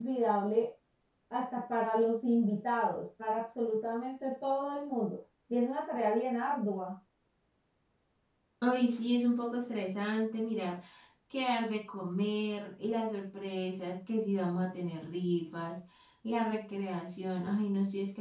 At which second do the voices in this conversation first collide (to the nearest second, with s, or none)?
none